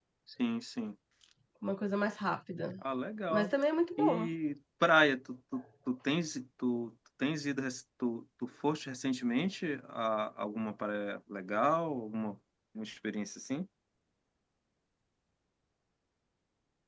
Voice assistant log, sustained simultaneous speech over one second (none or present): none